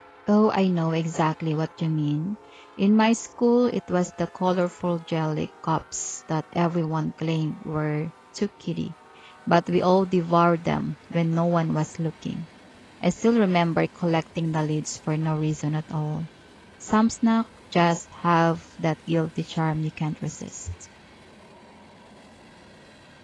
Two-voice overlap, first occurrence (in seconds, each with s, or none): none